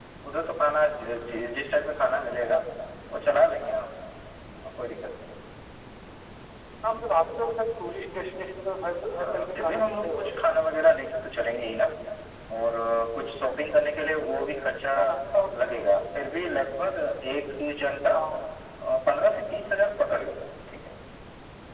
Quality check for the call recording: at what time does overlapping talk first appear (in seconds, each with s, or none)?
9.2 s